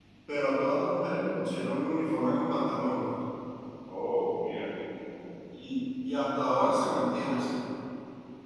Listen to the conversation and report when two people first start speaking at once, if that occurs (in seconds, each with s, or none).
none